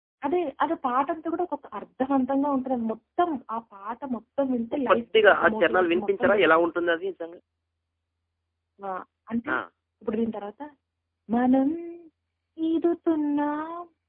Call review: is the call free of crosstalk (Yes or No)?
No